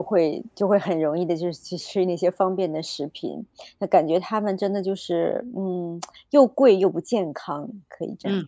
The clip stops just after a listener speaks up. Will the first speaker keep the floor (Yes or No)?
No